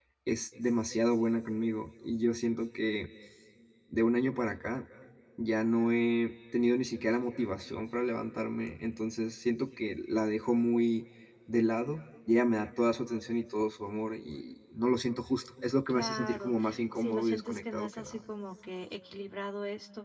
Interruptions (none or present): present